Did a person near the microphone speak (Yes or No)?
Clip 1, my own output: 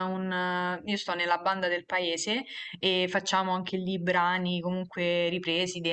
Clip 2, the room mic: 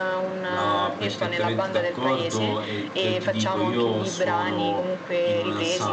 Yes